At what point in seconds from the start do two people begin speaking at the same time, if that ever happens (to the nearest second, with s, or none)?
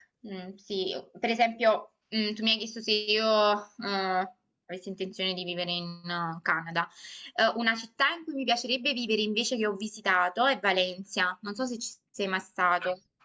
none